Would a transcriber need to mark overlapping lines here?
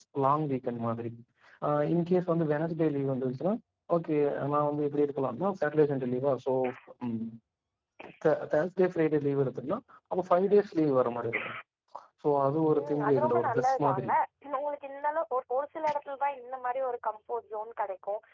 Yes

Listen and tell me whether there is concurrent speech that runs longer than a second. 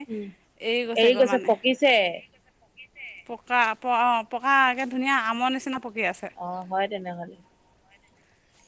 No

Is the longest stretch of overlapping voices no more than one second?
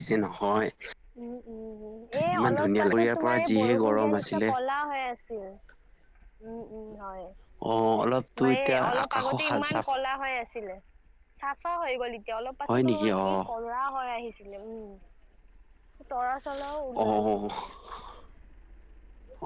No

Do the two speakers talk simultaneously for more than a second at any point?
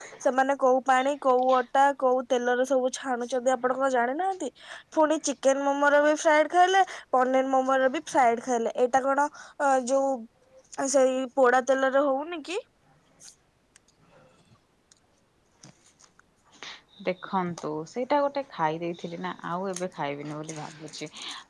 No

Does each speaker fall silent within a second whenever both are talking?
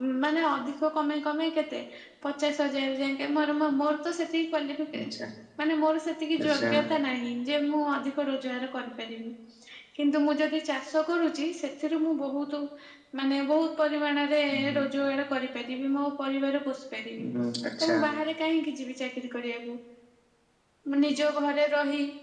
Yes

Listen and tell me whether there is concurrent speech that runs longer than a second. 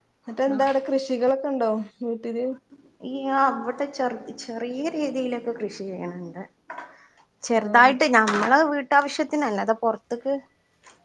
No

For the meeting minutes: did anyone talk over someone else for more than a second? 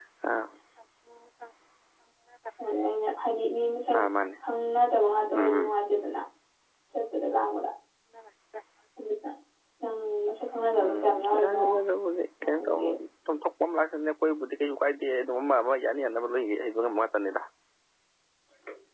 Yes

